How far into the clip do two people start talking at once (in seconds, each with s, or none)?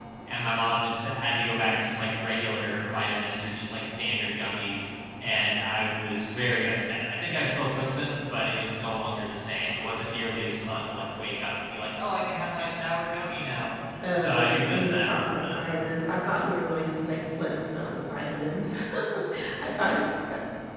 14.2 s